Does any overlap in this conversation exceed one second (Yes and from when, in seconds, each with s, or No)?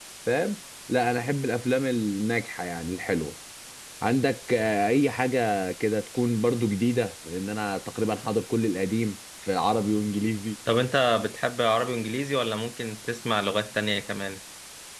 No